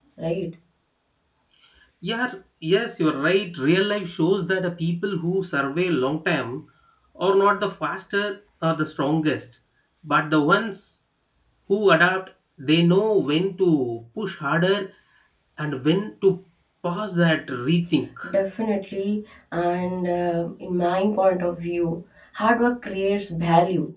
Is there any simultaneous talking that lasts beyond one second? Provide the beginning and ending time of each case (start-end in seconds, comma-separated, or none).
none